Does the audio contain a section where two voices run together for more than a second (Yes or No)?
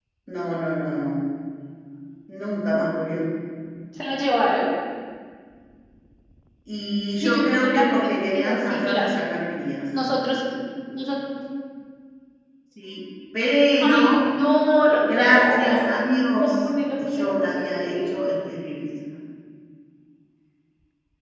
Yes